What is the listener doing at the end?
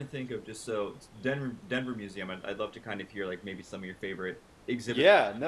taking over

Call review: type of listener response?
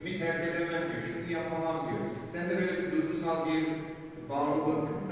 taking over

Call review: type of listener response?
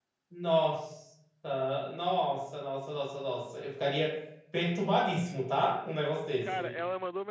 taking over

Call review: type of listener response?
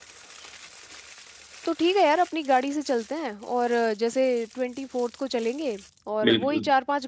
listening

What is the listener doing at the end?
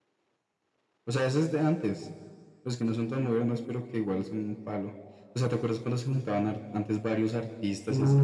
taking over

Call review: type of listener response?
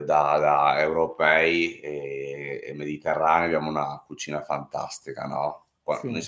listening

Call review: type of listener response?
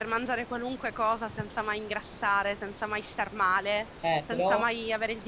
listening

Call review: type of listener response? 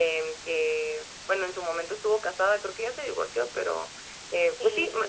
listening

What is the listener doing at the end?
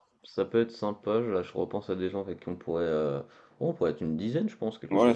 taking over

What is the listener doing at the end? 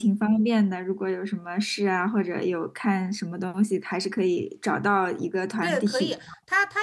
taking over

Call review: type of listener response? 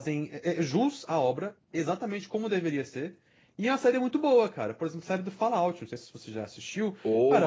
listening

